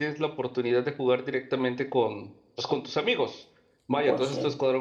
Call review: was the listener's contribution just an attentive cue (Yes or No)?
Yes